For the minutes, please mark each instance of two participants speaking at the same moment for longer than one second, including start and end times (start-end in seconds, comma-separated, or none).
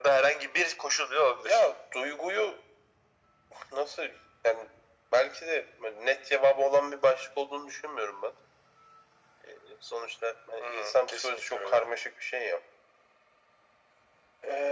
10.6-11.9